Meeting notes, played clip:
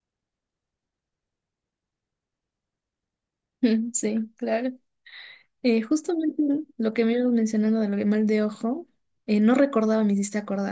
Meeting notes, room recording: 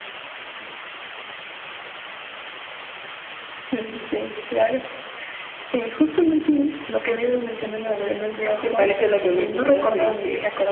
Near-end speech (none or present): present